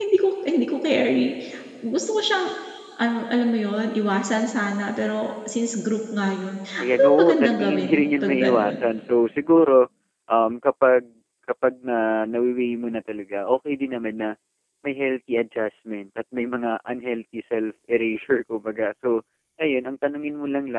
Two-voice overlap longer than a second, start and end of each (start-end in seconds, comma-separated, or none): 6.8-8.8